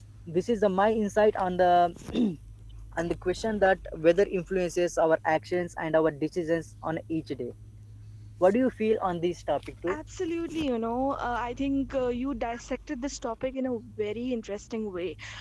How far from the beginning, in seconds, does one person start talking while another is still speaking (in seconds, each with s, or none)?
none